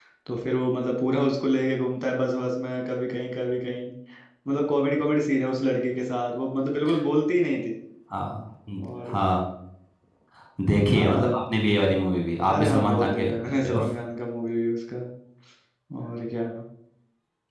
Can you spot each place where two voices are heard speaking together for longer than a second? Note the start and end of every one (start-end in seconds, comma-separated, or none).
12.5-13.8